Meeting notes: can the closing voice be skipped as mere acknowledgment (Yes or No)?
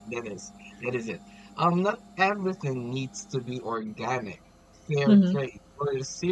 Yes